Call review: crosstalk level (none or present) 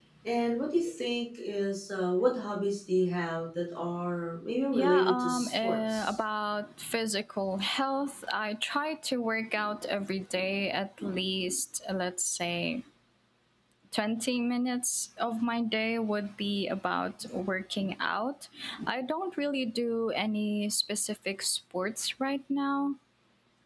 present